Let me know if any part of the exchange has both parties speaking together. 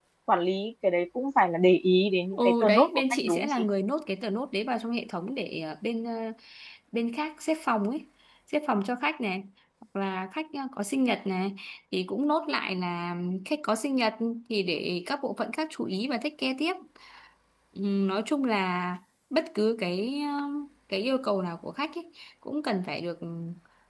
Yes, from 2.3 s

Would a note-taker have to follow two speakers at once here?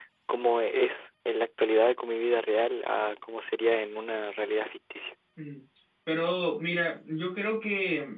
No

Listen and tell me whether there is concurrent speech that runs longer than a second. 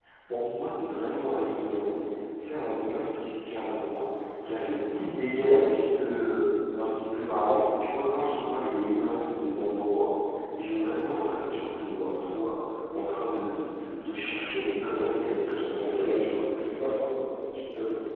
No

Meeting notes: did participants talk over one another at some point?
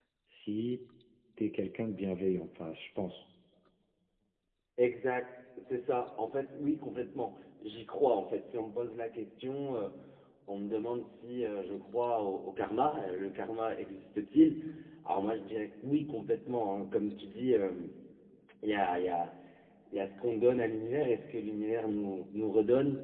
No

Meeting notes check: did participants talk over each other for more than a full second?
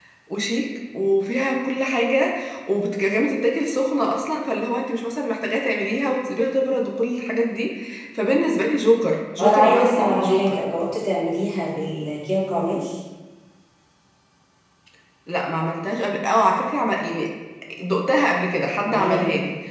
Yes, from 9.4 s

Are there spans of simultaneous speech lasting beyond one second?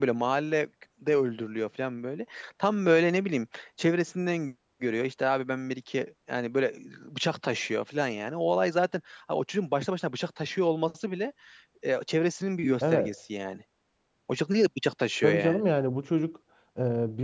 No

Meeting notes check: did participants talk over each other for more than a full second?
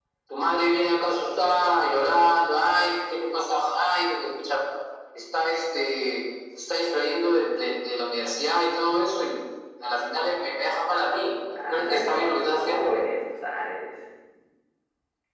Yes, from 11.6 s

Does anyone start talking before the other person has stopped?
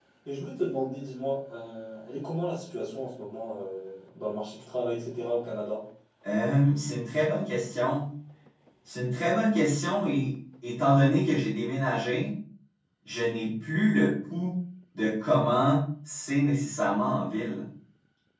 No

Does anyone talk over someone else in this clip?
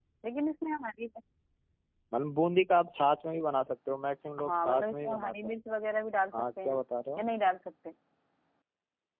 Yes, from 4.4 s

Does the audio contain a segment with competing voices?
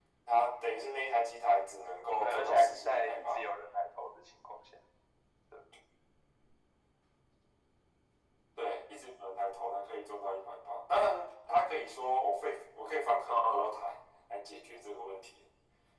Yes, from 2.2 s

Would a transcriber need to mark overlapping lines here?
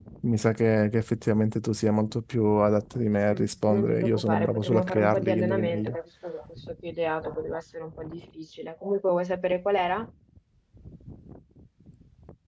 Yes, from 3.3 s

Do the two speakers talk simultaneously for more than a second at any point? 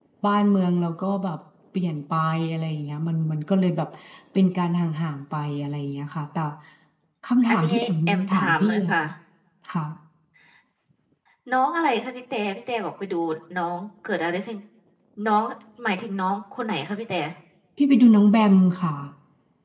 Yes, from 7.5 s

